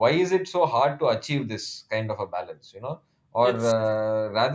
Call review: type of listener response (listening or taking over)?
listening